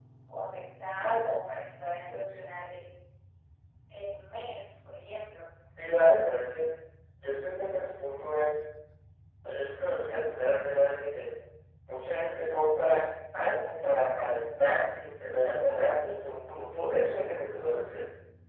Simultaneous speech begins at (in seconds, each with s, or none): none